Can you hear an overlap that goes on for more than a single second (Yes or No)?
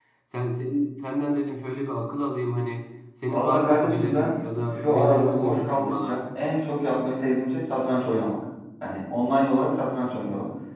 Yes